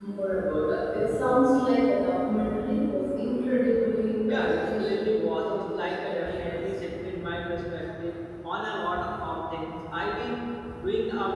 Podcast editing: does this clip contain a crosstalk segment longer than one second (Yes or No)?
Yes